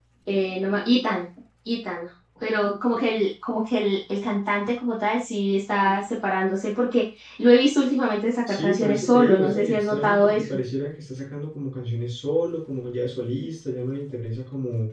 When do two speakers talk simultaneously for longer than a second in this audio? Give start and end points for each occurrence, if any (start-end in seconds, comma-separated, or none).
8.5-10.5